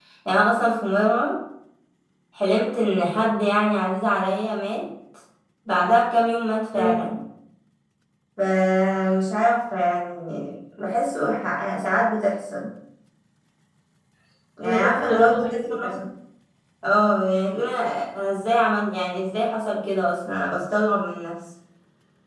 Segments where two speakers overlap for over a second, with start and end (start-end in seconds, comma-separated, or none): 14.6-16.0